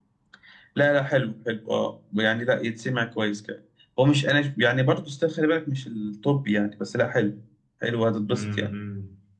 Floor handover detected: Yes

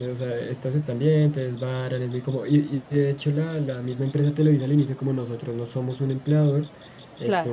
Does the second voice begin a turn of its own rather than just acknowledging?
No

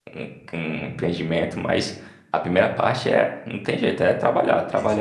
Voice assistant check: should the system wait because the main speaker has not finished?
No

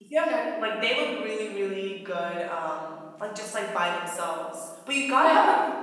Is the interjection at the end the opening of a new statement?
No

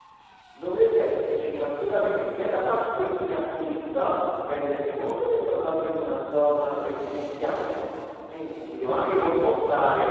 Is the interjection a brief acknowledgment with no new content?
Yes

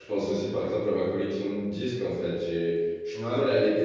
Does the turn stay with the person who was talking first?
Yes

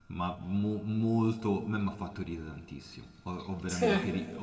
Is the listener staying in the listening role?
Yes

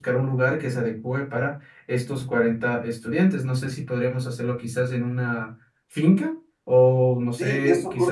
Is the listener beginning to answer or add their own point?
Yes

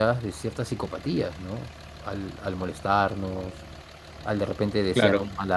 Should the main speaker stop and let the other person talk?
No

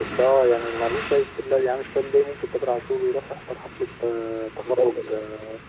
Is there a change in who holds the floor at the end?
No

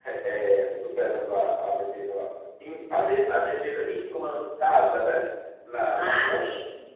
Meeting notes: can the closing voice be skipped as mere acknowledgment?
No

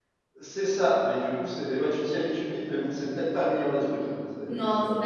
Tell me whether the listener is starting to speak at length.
Yes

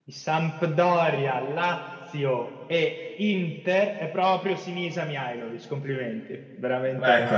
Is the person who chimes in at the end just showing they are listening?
Yes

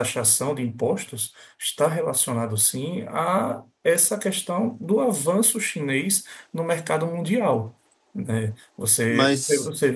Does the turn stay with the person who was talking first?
Yes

